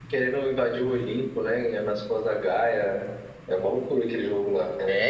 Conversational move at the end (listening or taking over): taking over